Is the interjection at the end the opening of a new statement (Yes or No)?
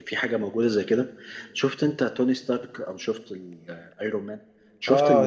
Yes